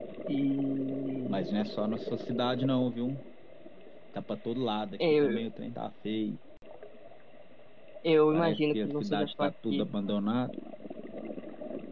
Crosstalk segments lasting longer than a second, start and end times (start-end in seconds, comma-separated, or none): 8.3-9.9